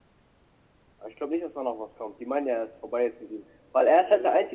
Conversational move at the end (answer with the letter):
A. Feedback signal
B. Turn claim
A